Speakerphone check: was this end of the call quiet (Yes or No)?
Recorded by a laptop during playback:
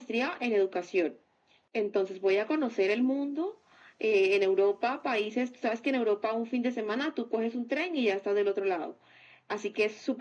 Yes